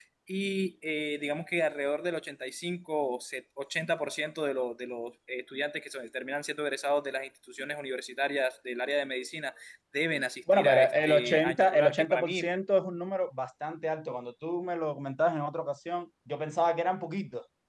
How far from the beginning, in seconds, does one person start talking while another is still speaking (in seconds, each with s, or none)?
10.5 s